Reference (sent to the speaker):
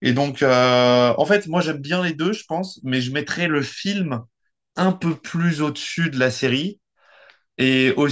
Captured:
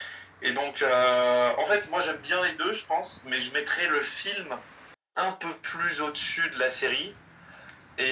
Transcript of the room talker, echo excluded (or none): none